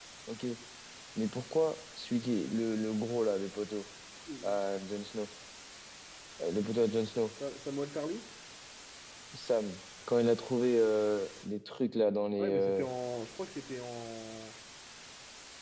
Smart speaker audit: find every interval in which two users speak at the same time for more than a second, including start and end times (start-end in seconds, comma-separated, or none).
none